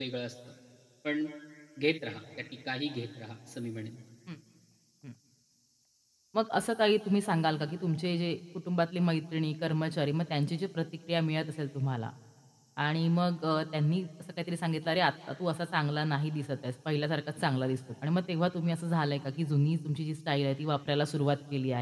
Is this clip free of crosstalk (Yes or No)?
Yes